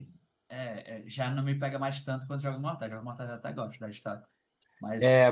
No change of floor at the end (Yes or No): No